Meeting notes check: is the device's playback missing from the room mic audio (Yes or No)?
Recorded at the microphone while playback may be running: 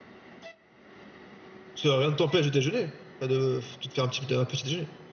Yes